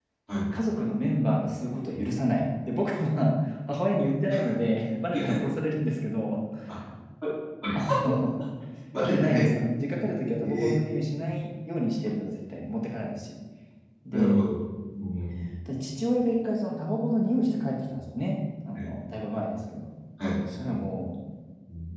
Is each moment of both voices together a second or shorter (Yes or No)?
Yes